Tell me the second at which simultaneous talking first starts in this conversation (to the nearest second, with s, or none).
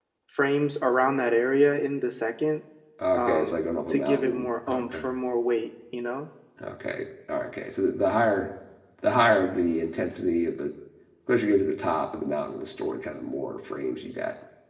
3 s